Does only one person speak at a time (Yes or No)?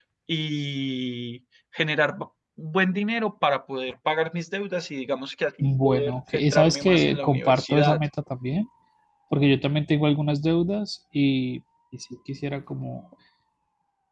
No